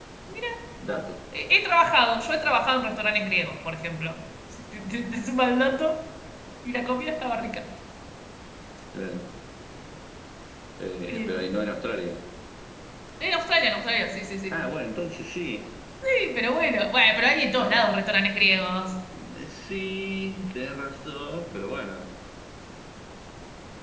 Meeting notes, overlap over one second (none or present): none